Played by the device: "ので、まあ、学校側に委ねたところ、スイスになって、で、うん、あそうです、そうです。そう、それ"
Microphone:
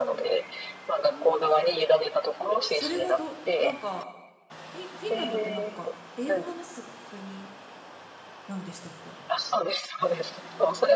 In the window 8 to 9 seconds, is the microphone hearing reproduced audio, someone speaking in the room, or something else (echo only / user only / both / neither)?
user only